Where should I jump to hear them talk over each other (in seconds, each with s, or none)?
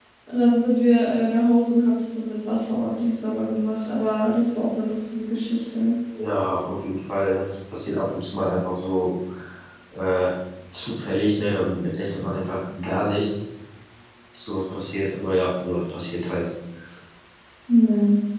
none